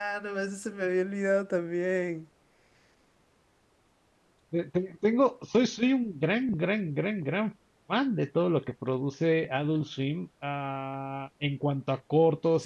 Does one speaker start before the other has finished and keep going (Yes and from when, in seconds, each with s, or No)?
No